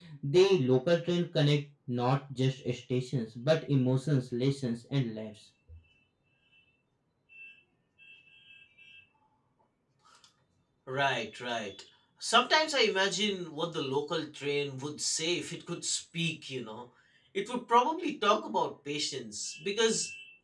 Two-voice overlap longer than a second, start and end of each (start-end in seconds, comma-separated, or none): none